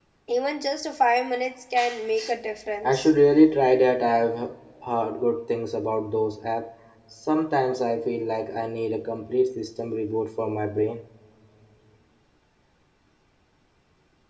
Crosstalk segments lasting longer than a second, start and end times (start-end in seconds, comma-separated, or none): none